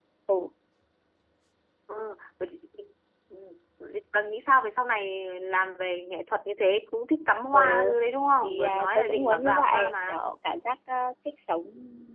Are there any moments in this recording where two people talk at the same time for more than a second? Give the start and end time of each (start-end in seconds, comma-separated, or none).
8.4-10.2